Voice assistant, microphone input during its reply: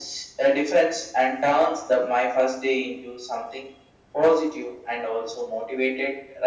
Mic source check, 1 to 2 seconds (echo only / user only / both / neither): echo only